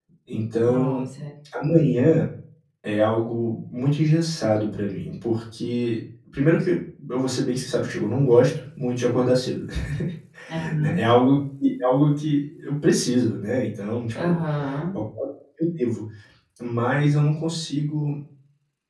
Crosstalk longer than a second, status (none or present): none